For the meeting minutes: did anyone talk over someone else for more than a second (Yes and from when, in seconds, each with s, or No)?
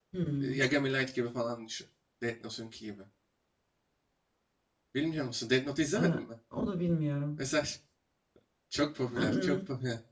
No